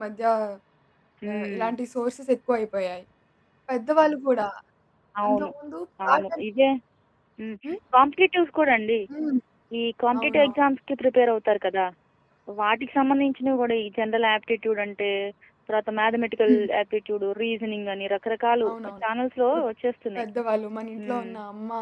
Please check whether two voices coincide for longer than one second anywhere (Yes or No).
No